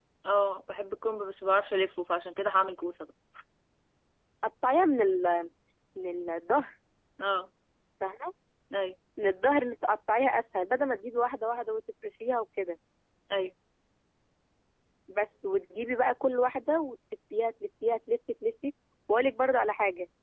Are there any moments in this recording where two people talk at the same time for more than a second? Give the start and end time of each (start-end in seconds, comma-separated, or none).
none